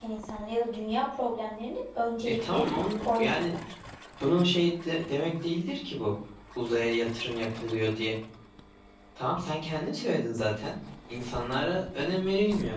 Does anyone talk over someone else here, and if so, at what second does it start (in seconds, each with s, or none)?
2.2 s